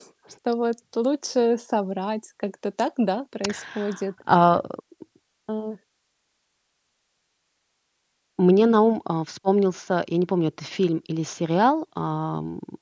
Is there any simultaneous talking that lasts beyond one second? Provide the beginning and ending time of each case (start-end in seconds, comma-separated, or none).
none